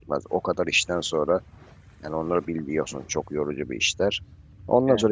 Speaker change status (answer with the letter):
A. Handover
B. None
B